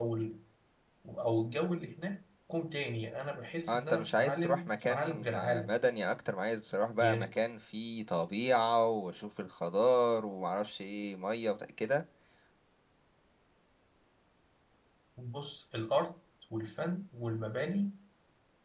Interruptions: present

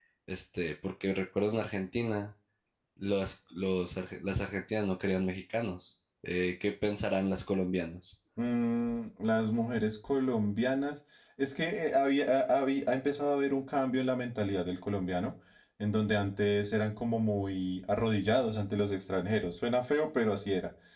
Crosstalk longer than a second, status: none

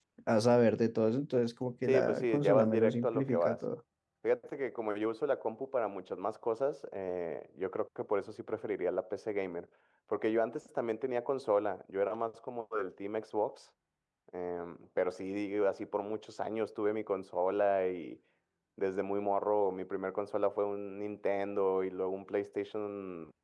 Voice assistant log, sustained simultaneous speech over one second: present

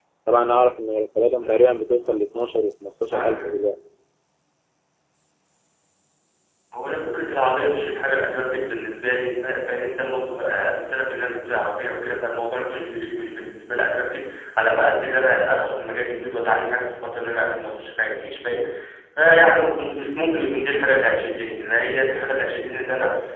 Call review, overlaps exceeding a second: none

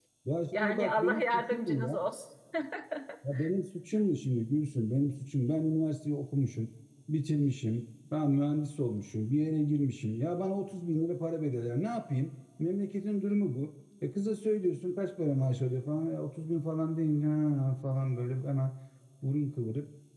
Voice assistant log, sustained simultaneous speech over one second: present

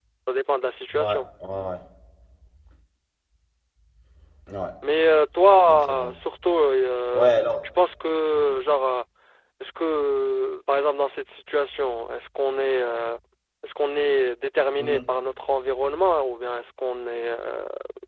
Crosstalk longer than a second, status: none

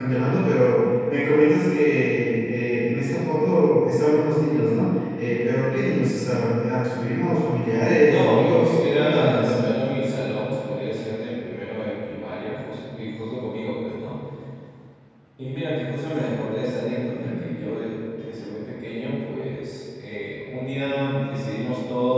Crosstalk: present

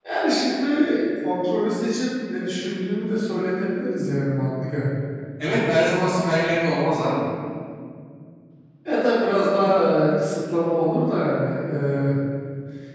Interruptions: none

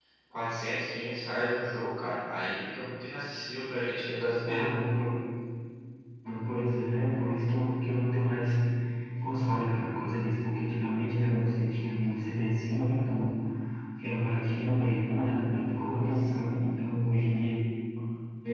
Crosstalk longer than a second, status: none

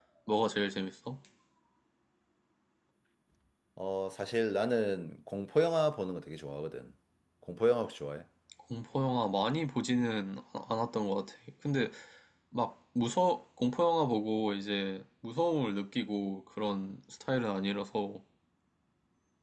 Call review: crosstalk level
none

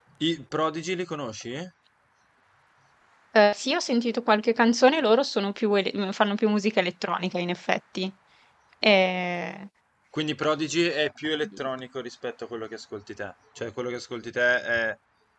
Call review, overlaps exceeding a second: none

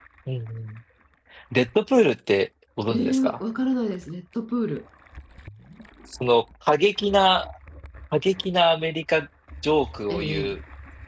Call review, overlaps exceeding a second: none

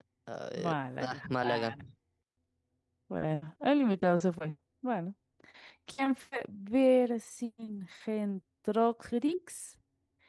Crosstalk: present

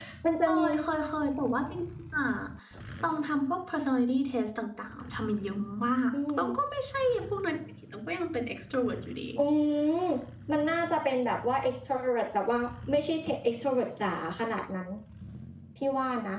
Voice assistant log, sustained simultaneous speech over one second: none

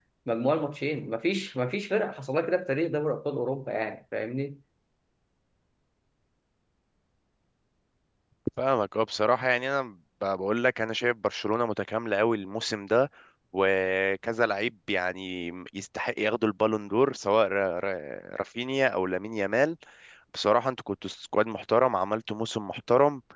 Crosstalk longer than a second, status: none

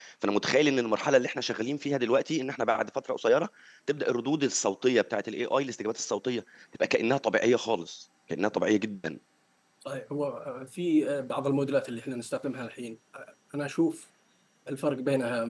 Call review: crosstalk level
none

